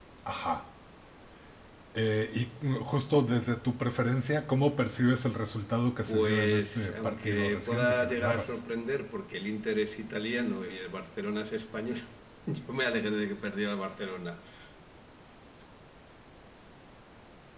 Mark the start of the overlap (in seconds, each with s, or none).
6.1 s